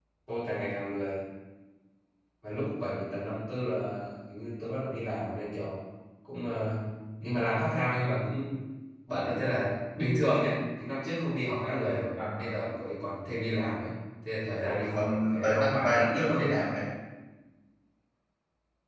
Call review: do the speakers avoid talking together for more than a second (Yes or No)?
No